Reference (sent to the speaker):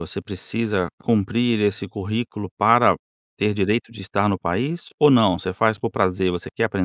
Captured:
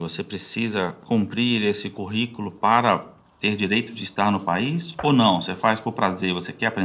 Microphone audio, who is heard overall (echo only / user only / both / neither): echo only